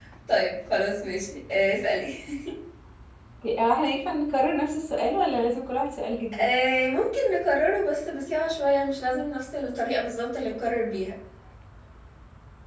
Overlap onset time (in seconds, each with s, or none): none